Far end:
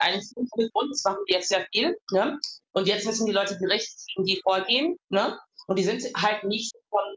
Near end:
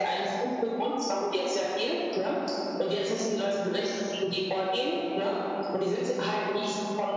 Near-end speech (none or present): none